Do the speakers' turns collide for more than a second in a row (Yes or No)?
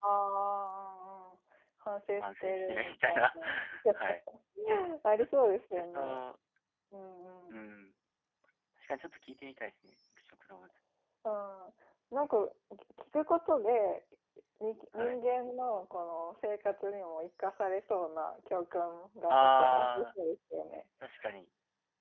Yes